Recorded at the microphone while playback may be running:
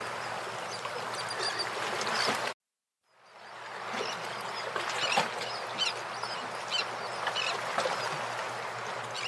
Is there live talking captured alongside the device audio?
No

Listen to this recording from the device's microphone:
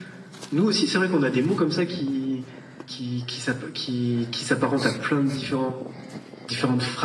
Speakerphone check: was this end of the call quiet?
Yes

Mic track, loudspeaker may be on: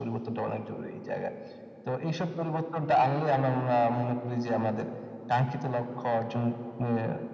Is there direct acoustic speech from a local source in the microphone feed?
No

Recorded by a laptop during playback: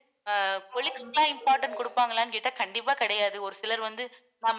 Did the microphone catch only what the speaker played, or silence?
No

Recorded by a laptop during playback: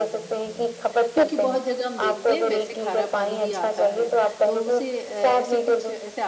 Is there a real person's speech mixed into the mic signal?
Yes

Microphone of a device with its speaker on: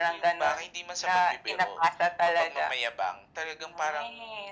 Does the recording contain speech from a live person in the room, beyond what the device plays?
No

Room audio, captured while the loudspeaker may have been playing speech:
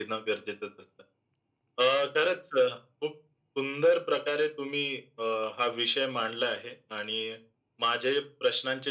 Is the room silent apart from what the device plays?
Yes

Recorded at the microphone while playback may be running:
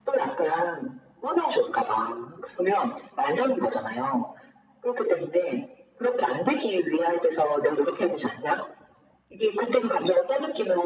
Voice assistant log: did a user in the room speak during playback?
No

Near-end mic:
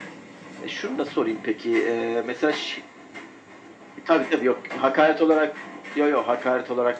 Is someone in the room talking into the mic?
No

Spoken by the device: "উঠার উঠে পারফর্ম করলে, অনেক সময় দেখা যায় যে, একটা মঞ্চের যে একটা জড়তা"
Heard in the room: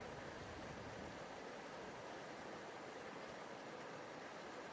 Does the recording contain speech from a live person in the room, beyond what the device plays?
No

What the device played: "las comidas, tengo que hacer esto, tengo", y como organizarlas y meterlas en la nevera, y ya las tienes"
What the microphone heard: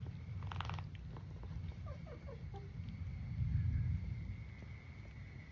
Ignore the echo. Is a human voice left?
No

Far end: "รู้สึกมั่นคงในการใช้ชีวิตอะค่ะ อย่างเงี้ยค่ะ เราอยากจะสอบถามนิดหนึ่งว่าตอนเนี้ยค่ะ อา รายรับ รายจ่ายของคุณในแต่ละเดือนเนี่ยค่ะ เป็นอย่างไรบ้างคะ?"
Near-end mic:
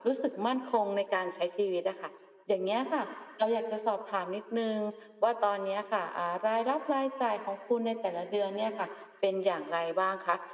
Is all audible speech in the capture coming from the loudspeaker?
Yes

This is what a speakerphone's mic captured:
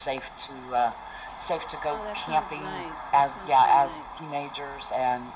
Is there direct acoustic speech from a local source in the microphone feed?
Yes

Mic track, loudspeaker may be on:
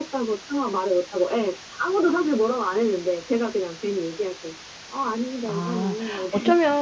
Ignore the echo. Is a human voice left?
Yes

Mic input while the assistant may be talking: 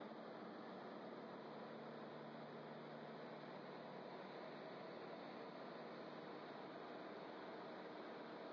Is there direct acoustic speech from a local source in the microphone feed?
No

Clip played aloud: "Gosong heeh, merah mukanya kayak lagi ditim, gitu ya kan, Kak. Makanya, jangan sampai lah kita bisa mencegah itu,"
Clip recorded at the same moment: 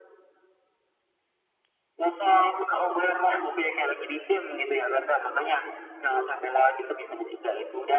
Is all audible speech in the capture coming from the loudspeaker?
Yes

